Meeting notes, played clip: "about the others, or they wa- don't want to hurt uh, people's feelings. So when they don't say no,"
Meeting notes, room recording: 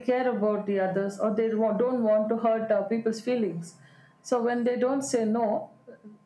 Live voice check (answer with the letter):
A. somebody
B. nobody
B